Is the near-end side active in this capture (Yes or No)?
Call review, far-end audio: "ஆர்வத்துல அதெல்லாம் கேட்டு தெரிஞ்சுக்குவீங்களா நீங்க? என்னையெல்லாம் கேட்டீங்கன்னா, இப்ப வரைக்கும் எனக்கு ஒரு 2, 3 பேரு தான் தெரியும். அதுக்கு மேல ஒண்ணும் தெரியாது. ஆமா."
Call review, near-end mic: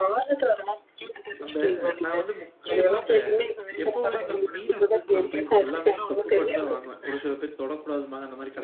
Yes